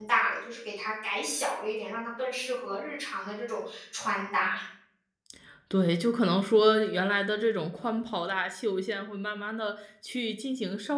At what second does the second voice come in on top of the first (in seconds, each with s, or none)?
none